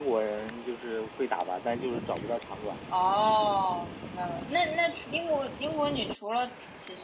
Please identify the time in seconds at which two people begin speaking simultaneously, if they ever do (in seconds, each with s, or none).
none